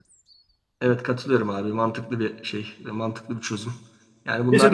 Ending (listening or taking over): taking over